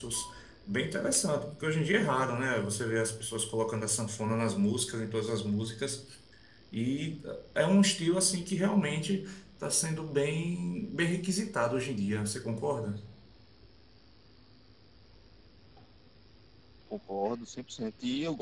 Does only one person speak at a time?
Yes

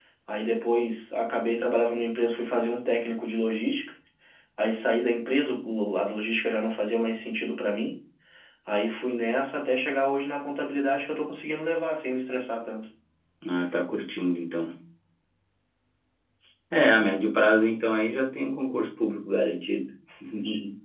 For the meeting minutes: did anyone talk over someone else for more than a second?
No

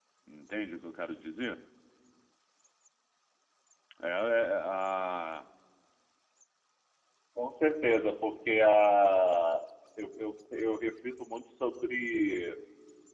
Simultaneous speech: No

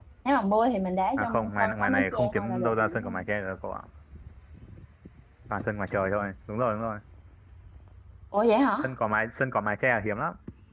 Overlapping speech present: Yes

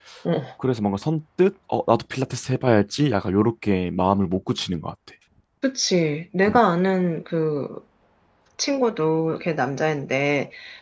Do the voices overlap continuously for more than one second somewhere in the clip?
No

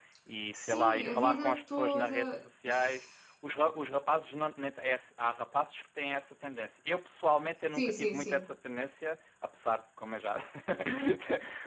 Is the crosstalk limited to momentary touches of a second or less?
No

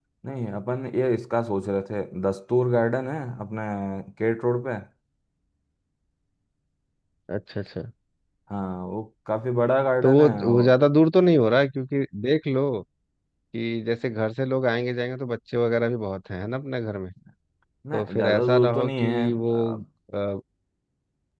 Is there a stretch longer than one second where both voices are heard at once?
Yes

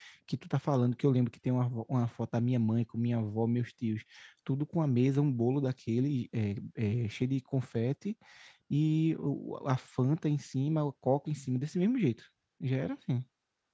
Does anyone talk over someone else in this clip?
No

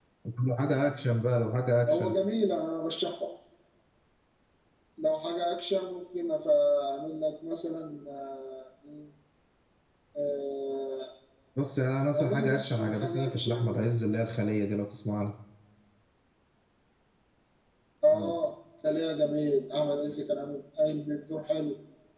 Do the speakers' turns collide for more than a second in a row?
Yes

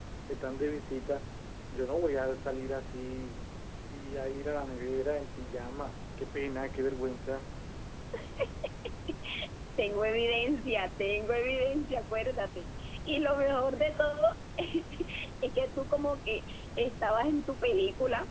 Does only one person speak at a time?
Yes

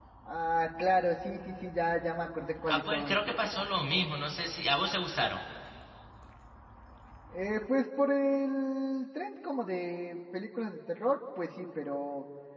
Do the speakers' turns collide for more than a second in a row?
No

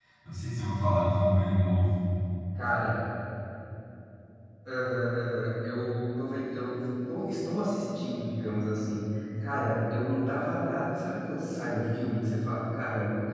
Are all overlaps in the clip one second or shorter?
Yes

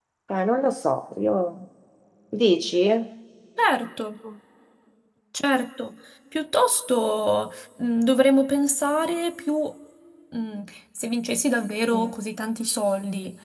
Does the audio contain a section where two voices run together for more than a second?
No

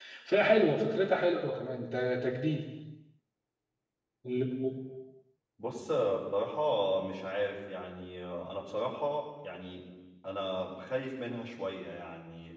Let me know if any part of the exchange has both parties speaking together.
No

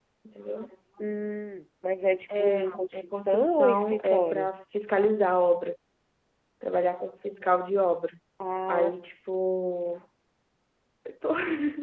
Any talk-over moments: Yes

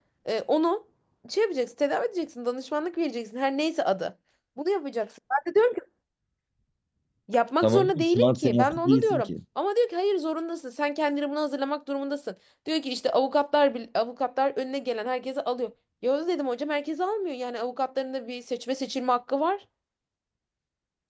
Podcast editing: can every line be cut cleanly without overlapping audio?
No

